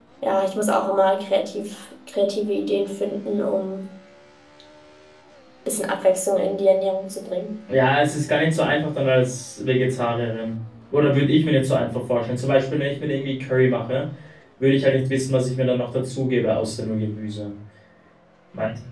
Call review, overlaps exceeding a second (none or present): none